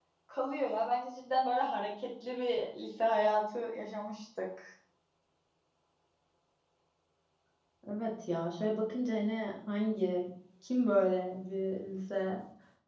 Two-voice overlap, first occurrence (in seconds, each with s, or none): none